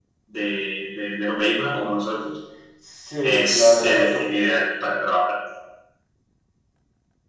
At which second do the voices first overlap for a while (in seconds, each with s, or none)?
3.2 s